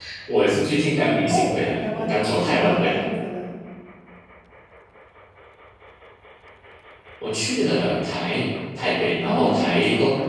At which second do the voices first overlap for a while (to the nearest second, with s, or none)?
1 s